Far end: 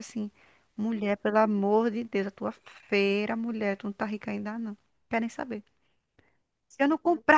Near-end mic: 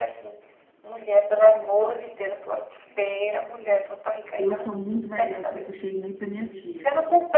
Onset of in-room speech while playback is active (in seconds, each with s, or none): 4.4 s